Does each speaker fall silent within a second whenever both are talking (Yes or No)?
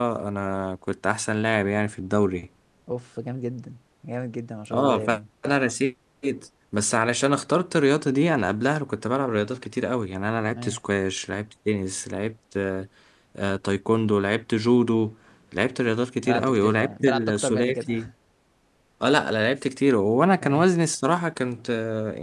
No